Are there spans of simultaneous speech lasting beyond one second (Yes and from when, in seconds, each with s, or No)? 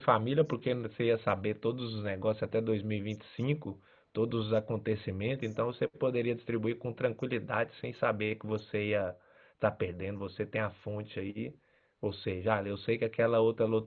No